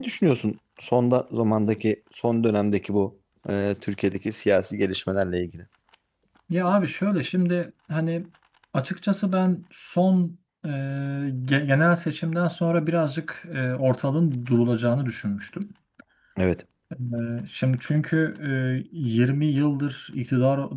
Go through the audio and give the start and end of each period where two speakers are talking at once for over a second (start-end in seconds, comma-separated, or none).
none